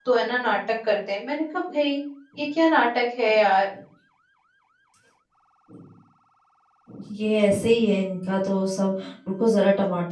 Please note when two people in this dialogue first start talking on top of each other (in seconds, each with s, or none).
none